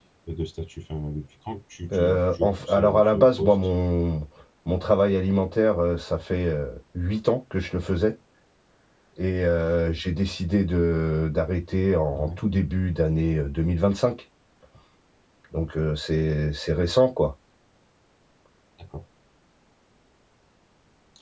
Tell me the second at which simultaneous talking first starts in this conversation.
1.9 s

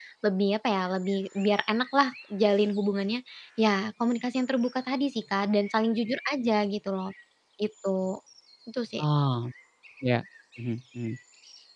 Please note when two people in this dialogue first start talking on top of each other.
none

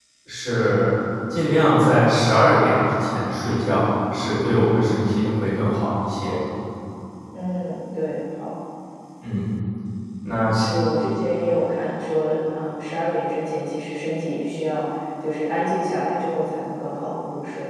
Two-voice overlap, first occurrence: none

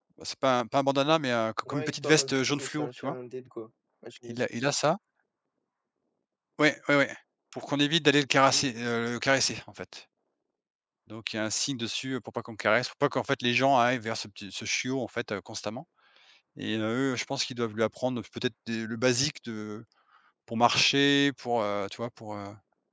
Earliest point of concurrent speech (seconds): 1.7 s

